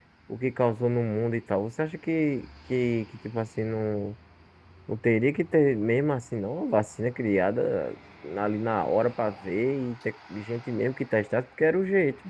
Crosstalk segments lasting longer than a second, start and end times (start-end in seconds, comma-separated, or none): none